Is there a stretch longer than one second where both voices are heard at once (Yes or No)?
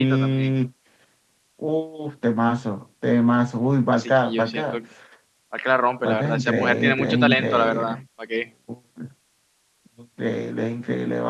Yes